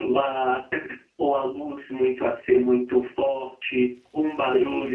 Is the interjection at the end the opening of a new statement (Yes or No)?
No